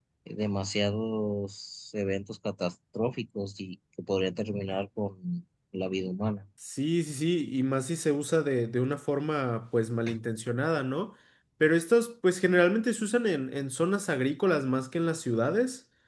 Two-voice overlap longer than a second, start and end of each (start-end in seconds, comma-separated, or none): none